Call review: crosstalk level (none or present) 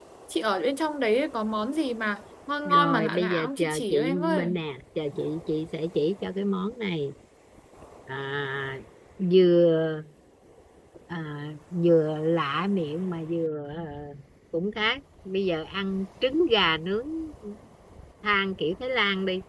present